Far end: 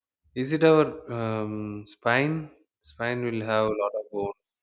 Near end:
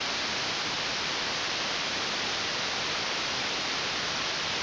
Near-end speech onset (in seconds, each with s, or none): none